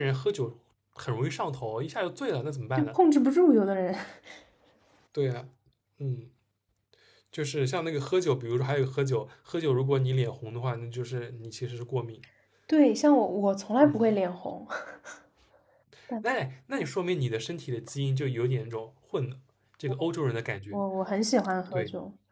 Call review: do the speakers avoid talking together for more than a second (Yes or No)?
Yes